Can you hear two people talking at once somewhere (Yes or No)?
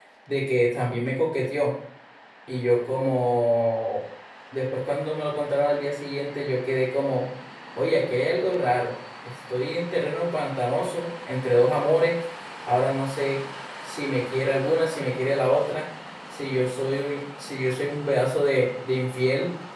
No